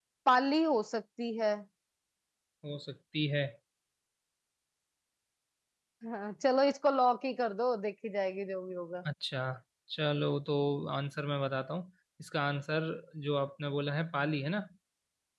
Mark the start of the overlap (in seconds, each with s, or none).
none